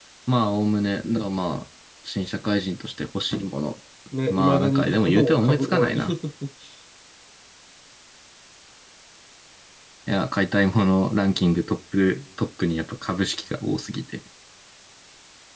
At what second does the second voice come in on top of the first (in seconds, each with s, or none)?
4.3 s